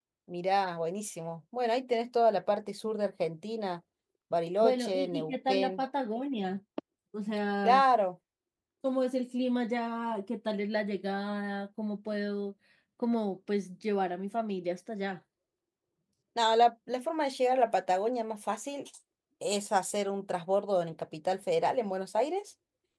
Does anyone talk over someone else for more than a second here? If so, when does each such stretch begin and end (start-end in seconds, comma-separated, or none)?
4.6-5.8